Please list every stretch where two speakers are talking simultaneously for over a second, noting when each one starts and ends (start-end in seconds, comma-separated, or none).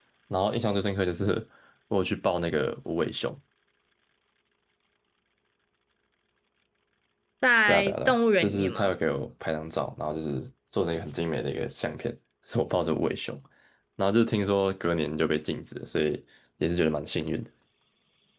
7.7-8.9